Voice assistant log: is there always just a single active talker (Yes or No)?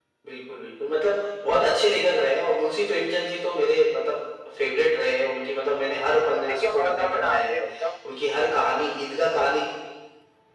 No